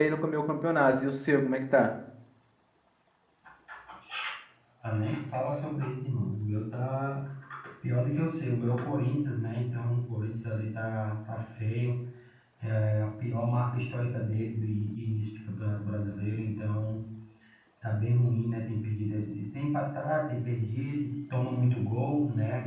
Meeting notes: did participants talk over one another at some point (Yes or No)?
No